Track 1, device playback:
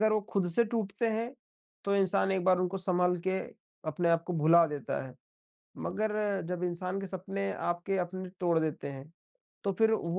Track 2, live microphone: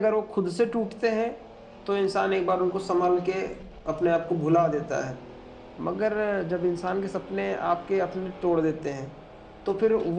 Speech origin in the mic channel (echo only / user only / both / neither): echo only